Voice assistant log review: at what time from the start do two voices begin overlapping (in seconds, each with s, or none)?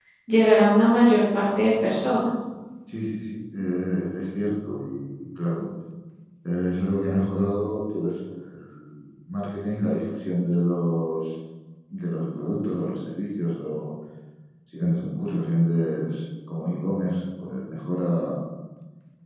none